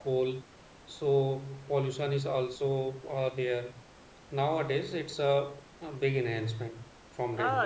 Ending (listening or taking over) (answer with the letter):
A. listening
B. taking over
B